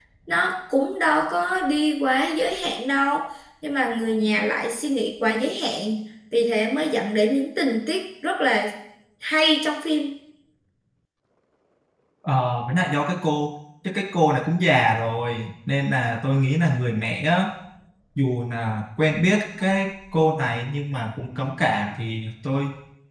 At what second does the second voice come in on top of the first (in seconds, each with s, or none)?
none